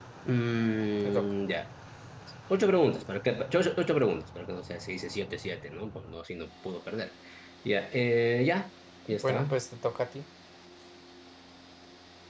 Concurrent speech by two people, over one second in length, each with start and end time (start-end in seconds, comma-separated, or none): none